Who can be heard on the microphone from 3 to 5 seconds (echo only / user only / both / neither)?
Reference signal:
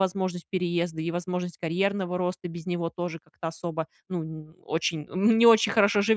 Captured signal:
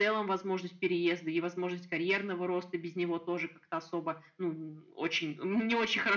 echo only